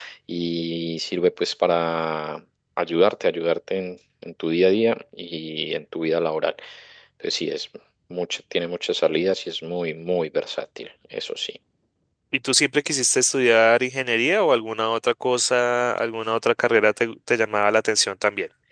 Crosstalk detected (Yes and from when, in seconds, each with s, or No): No